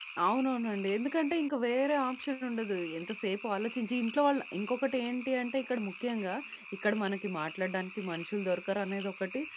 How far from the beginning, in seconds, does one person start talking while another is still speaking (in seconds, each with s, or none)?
none